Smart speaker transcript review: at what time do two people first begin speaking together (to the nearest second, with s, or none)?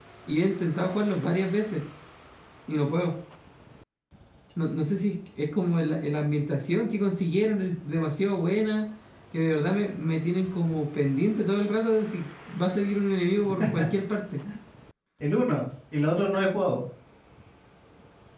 none